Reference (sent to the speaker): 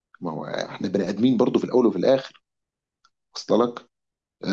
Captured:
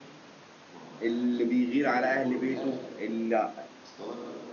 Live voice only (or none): اللي بيغير على اهل بيته اللي,